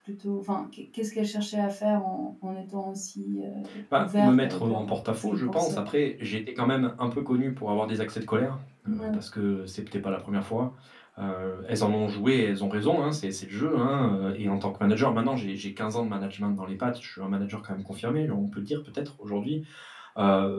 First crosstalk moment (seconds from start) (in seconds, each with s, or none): 3.9 s